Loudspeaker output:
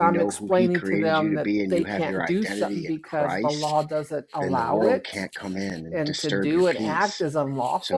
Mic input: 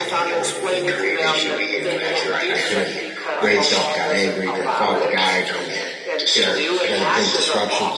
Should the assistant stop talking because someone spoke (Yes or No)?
Yes